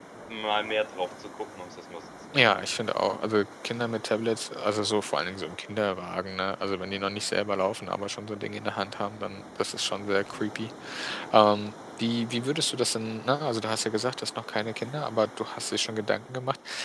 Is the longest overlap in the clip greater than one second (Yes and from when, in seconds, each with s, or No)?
No